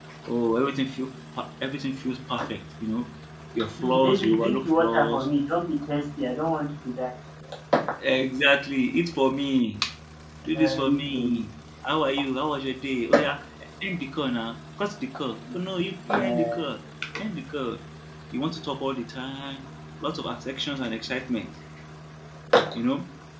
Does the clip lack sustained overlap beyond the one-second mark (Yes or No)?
No